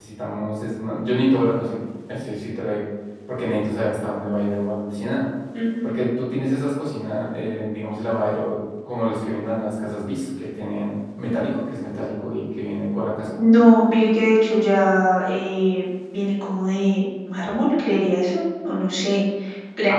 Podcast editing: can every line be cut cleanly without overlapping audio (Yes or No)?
Yes